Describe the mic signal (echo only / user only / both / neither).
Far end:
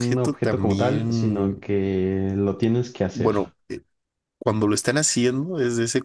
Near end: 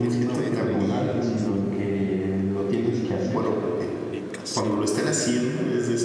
both